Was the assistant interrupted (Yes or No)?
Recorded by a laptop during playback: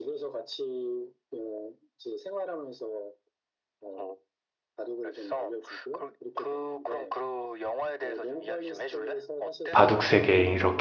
Yes